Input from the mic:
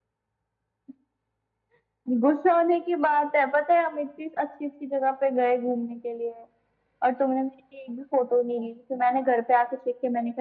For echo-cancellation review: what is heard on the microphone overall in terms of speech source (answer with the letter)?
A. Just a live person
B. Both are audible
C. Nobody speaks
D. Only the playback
D